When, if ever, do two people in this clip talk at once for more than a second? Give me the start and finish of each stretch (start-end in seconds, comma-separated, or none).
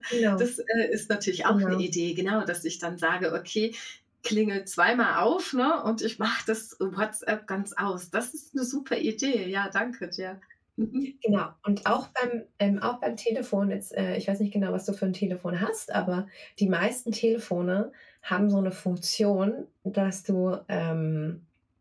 none